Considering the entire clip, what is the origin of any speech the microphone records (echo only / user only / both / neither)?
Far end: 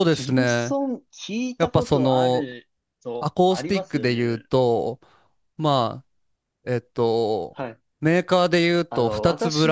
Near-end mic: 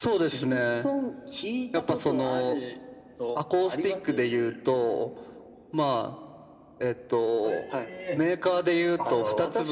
both